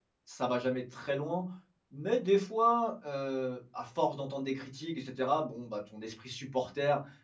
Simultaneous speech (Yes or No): No